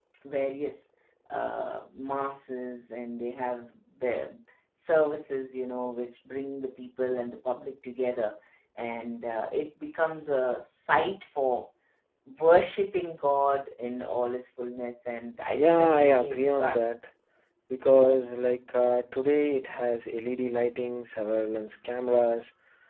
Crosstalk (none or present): present